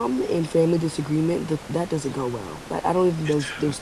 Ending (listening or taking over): listening